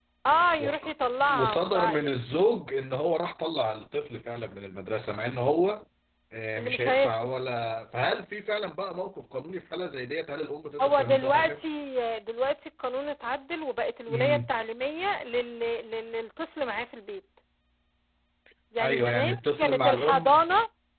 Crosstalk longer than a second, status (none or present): present